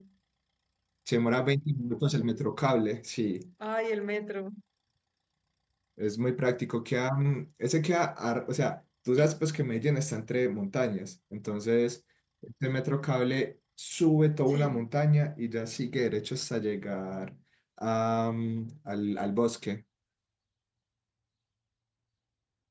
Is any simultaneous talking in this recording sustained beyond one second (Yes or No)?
No